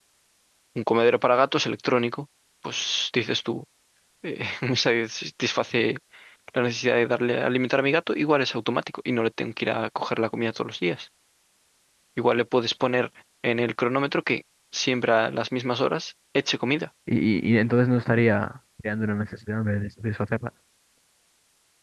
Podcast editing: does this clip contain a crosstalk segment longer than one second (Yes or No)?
No